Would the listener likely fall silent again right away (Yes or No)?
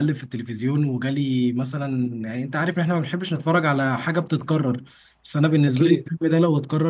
Yes